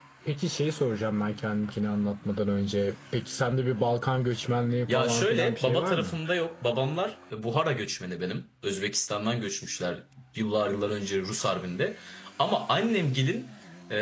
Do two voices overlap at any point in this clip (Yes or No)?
Yes